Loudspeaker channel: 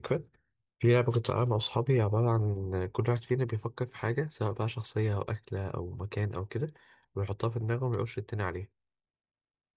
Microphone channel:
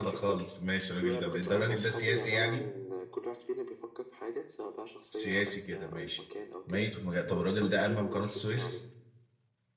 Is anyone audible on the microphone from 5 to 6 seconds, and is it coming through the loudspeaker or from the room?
both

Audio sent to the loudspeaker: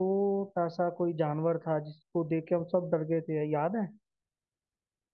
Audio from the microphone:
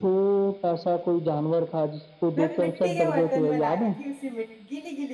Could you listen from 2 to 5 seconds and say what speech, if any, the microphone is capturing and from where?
both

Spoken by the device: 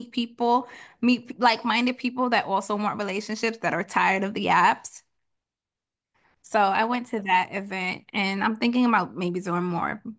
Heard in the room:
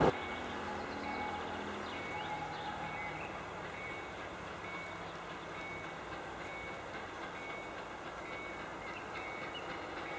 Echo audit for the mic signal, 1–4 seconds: neither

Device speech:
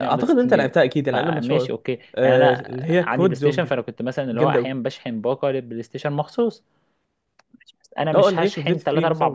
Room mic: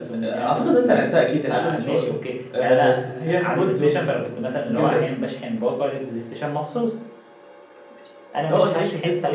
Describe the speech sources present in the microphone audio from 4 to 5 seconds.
echo only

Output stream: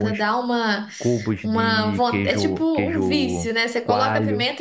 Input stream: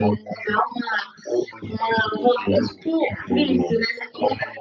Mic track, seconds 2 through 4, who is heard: echo only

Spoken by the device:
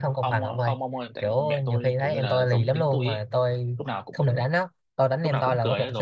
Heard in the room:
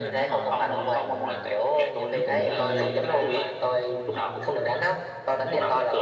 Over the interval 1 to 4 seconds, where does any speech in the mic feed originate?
both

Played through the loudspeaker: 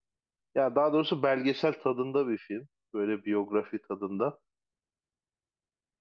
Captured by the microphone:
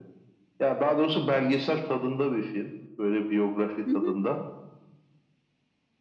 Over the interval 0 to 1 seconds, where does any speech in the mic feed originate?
echo only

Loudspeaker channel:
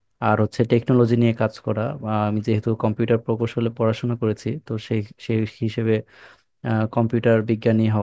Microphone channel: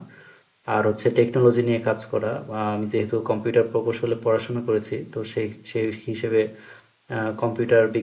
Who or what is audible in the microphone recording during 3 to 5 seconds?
echo only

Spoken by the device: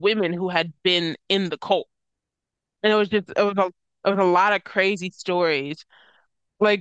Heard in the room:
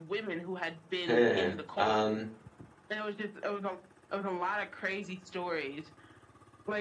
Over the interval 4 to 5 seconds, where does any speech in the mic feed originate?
echo only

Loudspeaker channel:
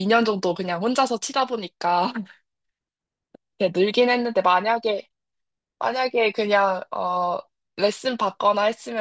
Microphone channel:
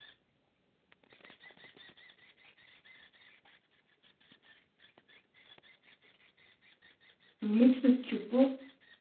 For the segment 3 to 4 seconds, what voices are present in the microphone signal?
neither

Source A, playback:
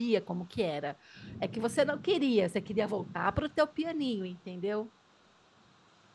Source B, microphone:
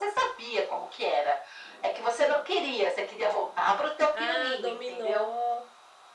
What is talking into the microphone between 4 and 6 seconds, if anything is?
both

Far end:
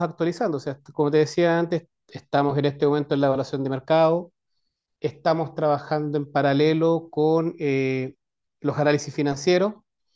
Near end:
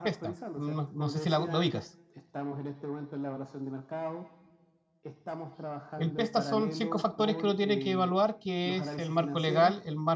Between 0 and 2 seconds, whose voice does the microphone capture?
both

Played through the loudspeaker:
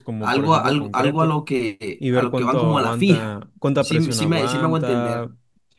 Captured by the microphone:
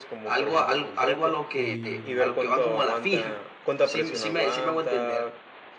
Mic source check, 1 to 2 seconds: both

